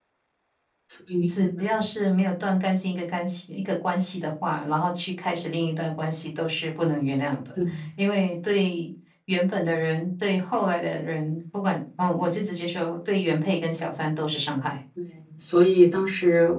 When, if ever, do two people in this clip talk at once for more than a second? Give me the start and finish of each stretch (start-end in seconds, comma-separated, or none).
none